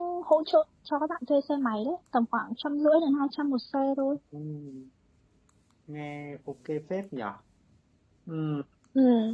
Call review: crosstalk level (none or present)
none